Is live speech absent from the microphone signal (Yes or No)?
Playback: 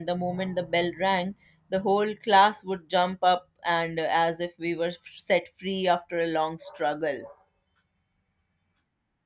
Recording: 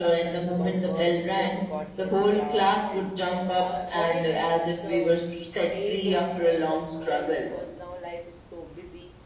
No